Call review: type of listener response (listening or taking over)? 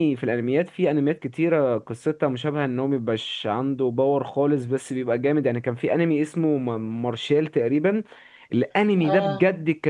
listening